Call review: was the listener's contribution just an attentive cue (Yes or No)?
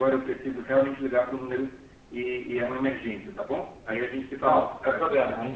No